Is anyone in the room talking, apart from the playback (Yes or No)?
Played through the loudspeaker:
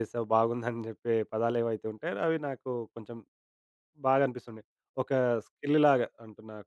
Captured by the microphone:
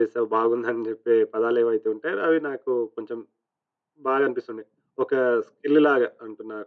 No